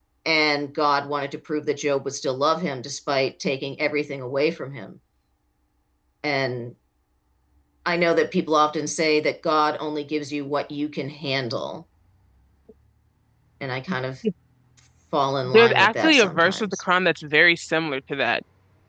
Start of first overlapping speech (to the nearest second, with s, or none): 15 s